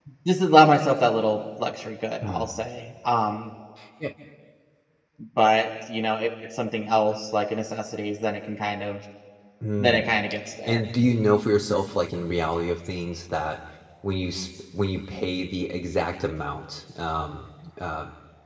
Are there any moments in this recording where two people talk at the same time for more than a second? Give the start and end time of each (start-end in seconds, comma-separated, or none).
none